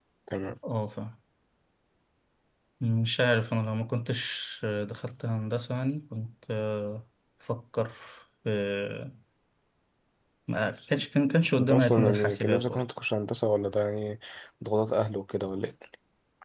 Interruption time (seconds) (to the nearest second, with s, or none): 12 s